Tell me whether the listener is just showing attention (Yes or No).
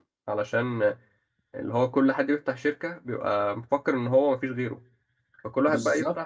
Yes